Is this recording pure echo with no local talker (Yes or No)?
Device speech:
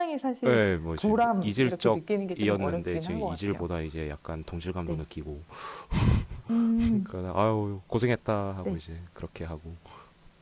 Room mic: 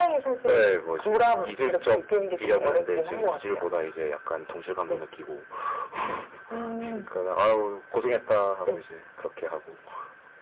Yes